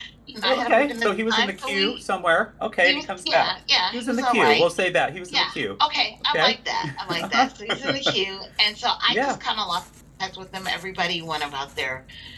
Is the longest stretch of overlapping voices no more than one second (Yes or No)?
No